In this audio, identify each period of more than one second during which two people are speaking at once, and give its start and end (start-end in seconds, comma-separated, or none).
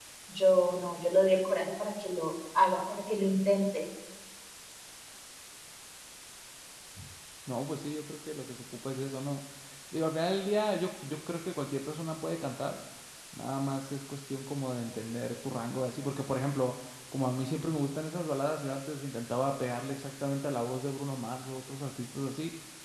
none